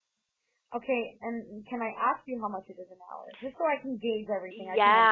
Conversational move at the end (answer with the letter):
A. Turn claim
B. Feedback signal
A